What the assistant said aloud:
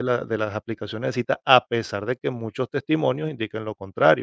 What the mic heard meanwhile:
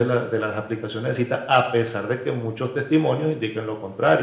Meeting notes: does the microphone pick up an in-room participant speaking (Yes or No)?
No